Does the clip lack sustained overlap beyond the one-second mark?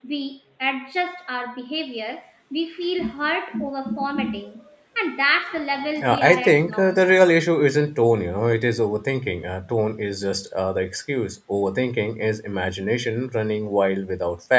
No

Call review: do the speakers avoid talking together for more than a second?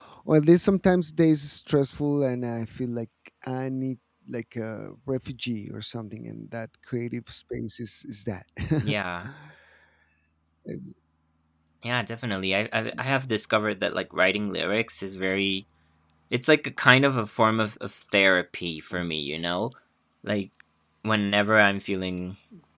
Yes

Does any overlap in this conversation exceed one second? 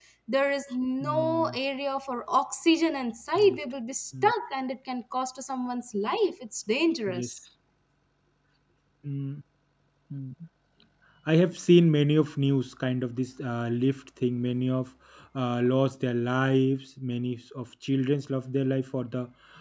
No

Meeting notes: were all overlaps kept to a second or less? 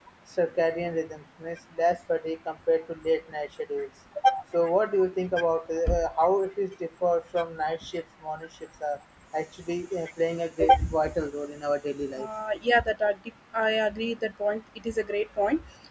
Yes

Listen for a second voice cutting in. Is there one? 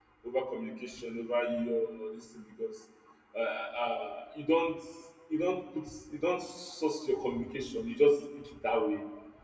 No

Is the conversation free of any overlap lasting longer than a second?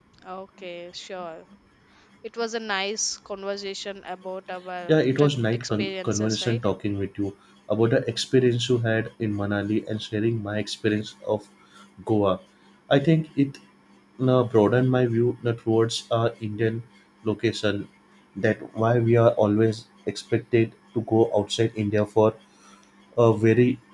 No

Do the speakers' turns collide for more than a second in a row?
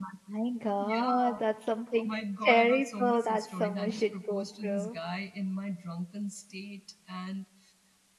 Yes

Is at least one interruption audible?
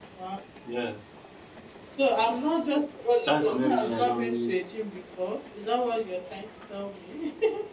Yes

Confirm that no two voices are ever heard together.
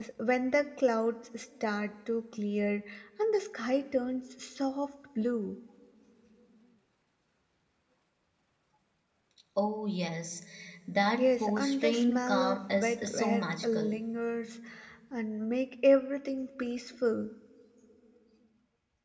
No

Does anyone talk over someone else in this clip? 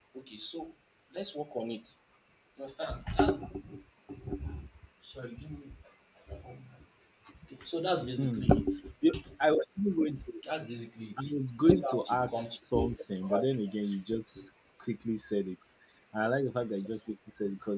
Yes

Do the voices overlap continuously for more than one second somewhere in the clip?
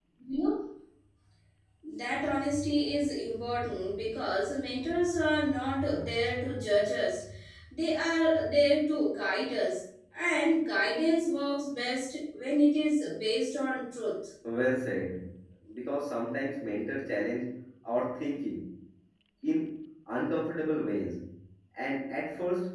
No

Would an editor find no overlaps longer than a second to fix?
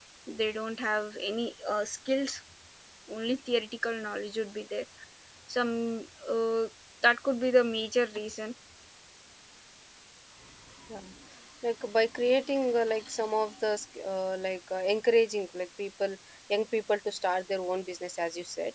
Yes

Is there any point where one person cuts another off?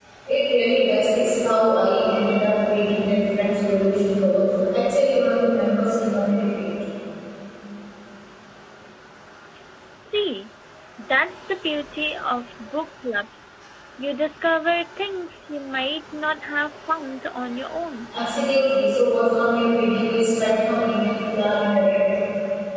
No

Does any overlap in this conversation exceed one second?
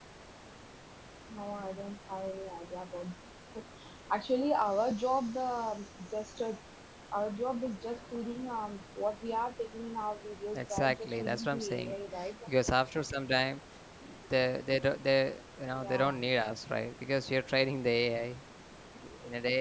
Yes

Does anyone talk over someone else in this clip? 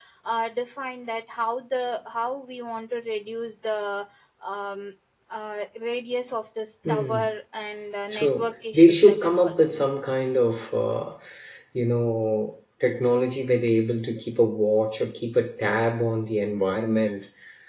Yes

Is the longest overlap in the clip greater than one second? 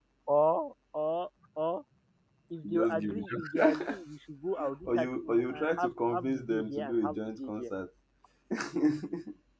Yes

